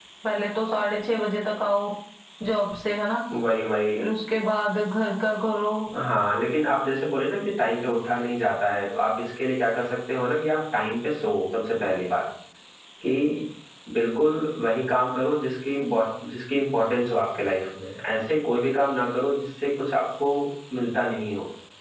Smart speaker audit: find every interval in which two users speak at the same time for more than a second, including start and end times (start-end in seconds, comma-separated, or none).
none